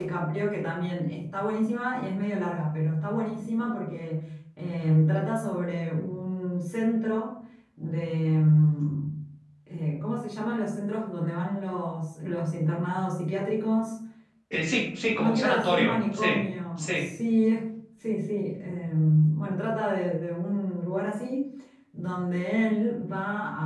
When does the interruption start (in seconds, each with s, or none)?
15.1 s